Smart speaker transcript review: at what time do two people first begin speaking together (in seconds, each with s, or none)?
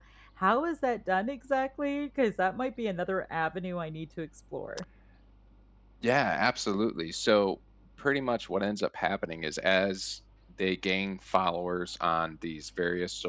none